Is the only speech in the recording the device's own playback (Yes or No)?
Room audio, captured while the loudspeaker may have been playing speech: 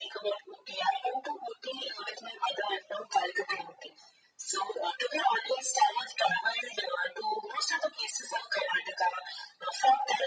Yes